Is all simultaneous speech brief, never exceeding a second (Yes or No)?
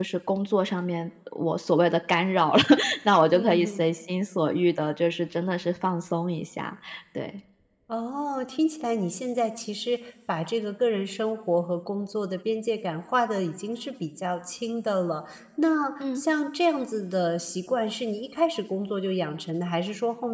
Yes